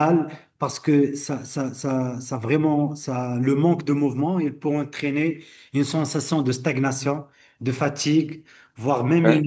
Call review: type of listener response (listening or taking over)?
listening